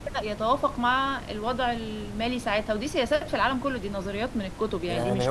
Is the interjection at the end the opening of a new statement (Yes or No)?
Yes